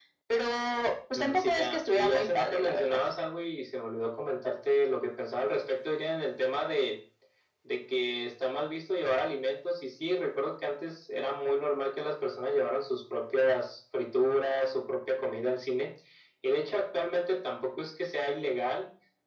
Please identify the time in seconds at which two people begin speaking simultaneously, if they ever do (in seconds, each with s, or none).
1.1 s